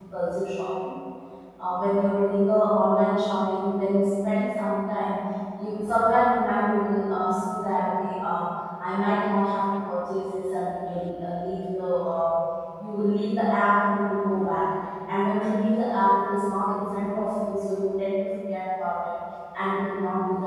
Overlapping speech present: No

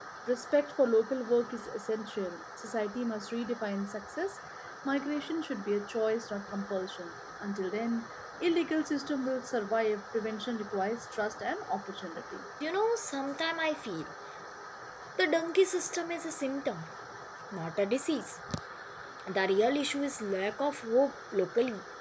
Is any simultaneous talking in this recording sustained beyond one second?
No

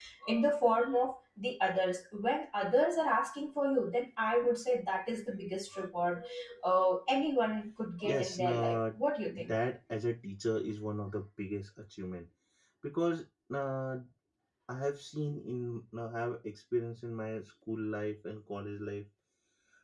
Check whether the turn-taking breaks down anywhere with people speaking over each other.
Yes, from 8.0 s

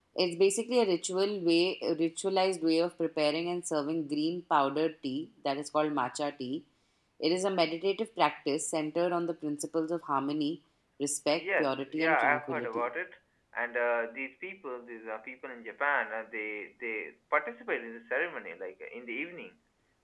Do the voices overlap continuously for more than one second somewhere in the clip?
Yes, from 11.3 s

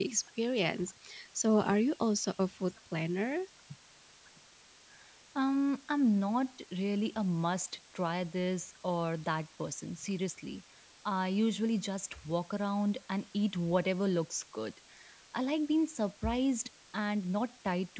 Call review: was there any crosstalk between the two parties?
No

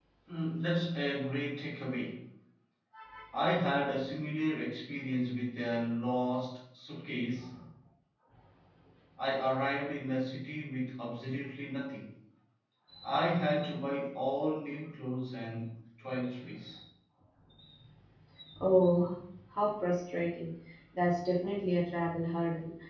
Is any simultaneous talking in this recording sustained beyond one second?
No

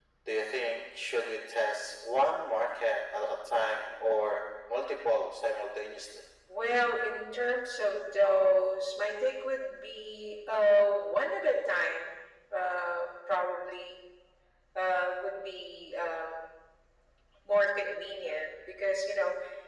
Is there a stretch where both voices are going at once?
No

